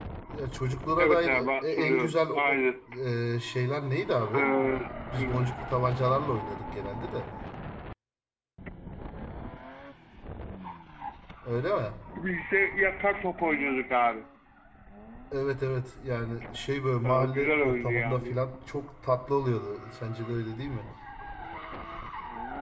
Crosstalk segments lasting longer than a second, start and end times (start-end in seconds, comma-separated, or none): 1.0-2.6, 17.0-18.4